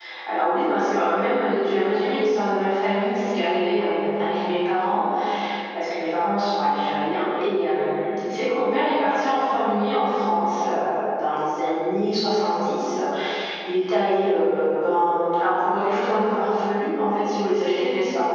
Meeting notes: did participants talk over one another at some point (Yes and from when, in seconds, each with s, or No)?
No